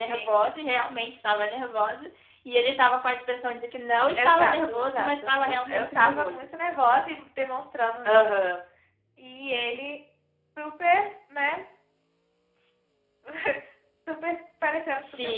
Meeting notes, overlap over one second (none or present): present